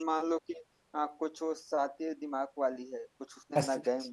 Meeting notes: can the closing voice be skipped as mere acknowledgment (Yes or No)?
Yes